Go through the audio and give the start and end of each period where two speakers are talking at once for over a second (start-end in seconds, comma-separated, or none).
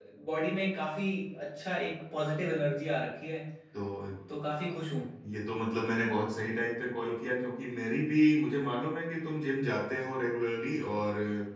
none